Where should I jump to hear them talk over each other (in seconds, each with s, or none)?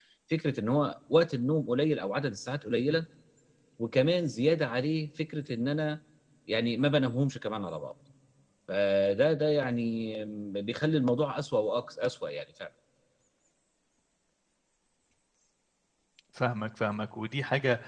none